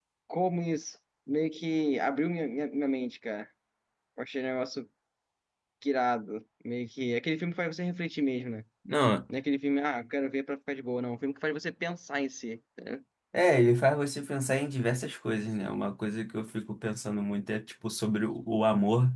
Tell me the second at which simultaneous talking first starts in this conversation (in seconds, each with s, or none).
none